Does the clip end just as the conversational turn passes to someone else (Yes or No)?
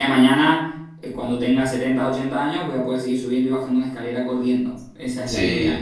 Yes